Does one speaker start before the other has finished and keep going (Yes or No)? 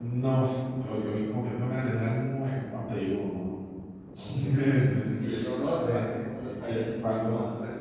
Yes